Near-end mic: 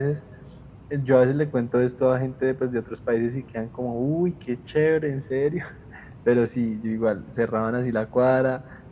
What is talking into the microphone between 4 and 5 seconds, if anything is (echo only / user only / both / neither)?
echo only